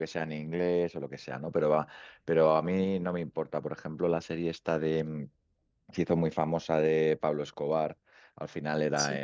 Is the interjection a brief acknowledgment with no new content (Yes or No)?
Yes